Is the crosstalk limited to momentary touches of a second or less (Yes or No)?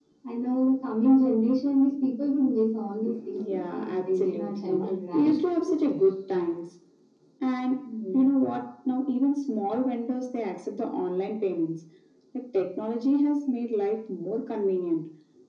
No